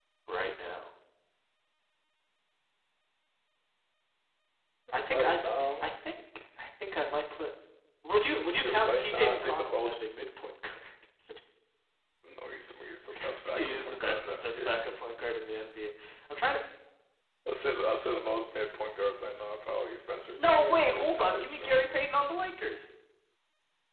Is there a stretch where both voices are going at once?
Yes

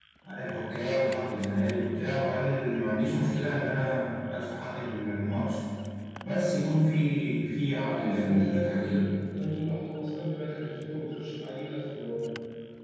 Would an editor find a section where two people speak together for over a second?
Yes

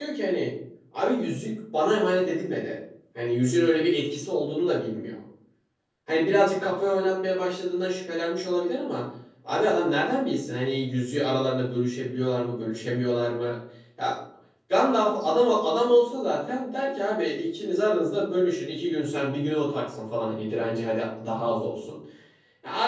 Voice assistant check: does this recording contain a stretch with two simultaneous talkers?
No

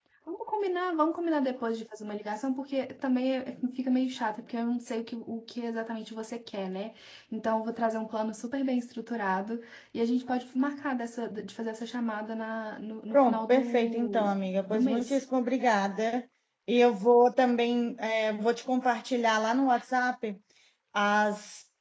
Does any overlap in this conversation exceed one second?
Yes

